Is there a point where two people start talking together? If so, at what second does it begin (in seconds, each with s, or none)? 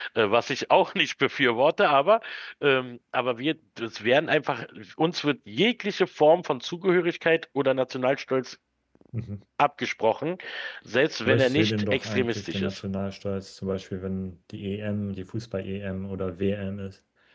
11.3 s